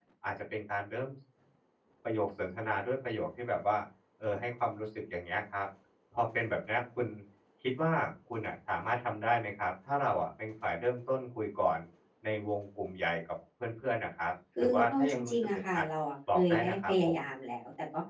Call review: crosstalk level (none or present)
present